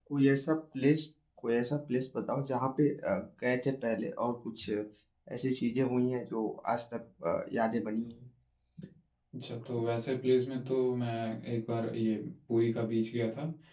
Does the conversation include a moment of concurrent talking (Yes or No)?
No